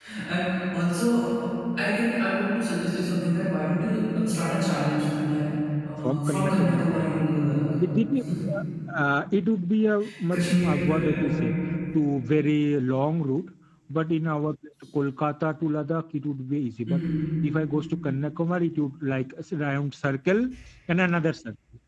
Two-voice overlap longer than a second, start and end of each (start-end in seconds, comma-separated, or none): 6.0-7.2, 10.3-11.5